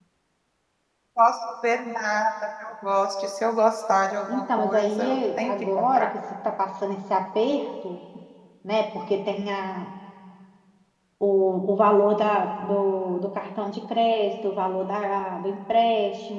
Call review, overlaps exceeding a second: present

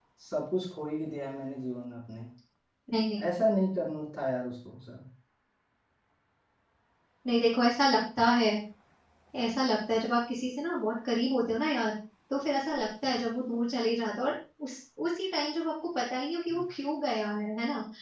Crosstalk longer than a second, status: none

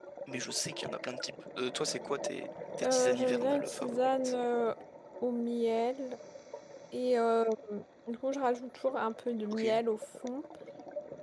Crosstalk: present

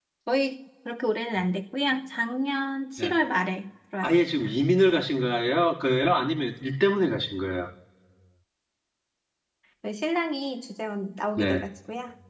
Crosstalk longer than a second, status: none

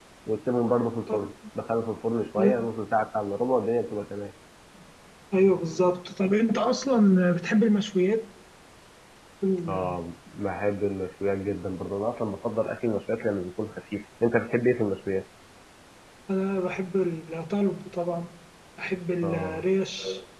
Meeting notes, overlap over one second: none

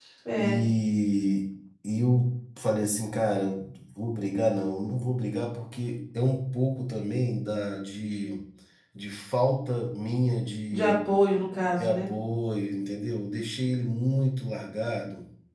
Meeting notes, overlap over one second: none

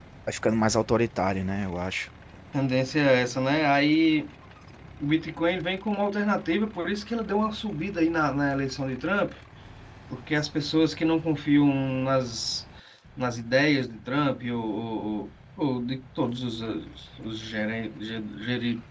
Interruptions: none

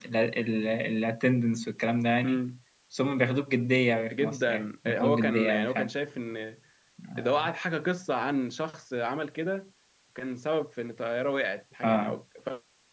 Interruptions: present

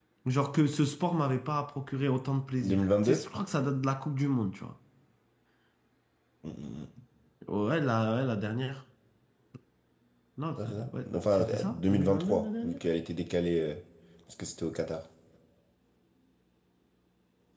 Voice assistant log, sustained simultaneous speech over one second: present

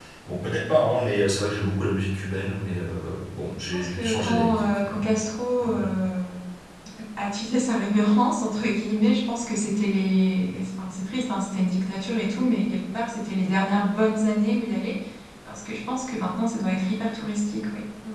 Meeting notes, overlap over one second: present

